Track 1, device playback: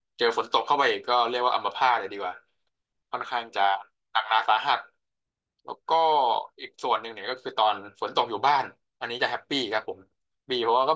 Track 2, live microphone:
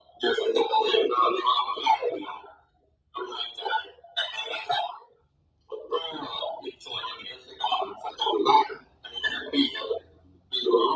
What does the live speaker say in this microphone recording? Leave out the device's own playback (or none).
none